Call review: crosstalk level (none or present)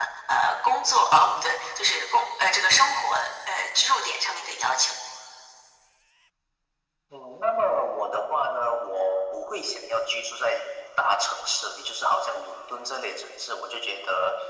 none